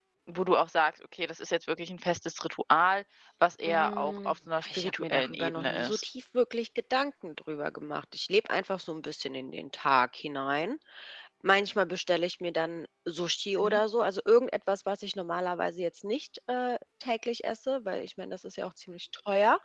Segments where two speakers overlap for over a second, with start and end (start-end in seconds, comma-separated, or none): 3.6-6.0